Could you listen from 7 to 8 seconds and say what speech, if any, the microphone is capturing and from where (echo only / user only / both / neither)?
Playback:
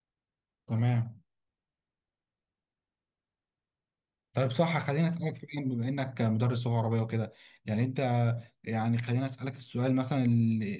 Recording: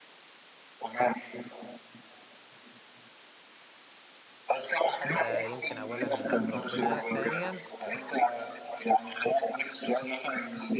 both